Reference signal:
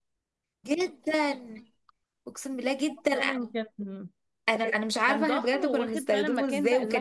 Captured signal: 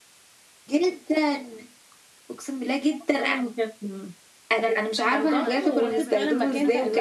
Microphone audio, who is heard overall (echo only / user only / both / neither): both